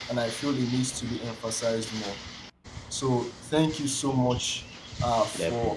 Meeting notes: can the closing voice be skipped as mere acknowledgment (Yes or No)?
Yes